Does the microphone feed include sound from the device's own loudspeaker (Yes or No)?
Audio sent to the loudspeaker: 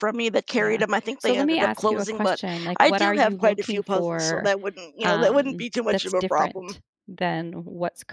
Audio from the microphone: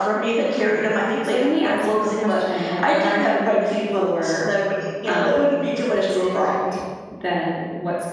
Yes